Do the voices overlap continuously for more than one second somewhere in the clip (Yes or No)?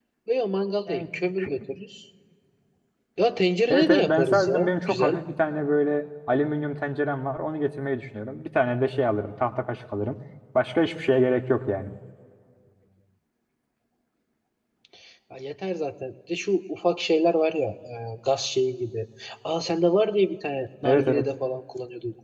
Yes